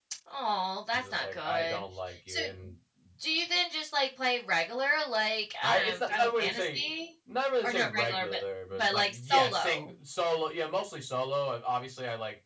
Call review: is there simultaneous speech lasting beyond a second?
Yes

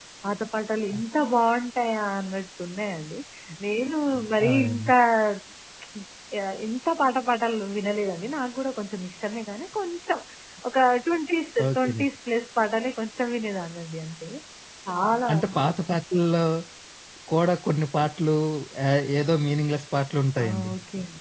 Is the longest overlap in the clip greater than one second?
No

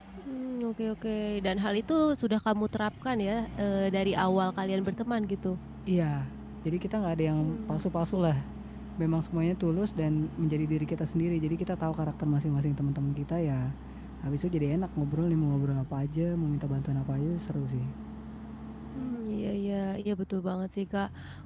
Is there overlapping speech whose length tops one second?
No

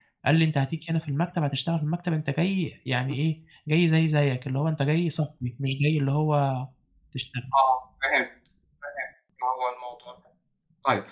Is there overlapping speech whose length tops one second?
No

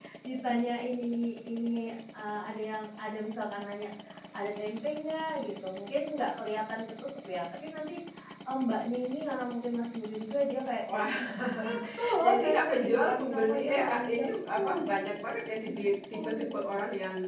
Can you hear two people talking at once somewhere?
Yes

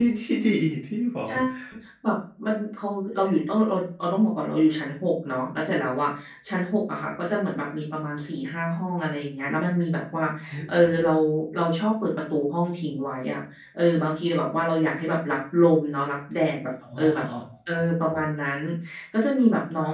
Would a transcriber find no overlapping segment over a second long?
Yes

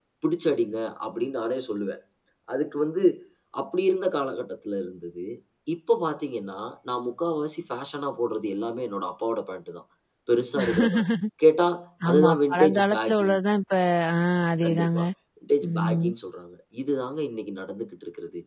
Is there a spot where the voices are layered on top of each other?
Yes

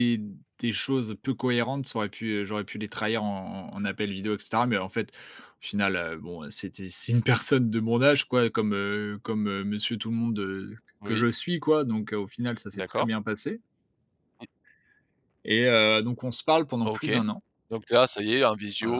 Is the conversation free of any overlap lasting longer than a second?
Yes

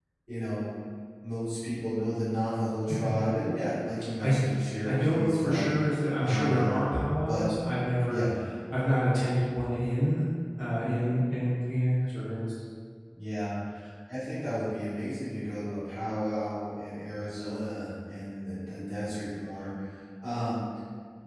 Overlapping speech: Yes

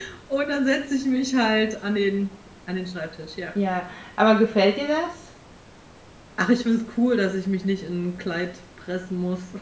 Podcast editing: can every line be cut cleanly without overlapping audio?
Yes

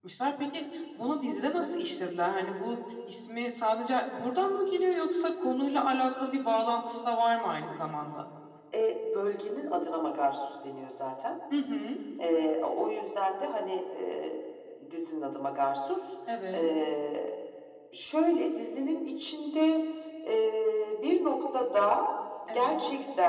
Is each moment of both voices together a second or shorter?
Yes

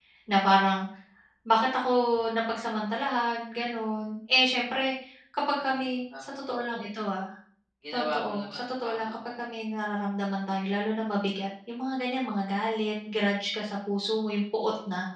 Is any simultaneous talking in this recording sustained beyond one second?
Yes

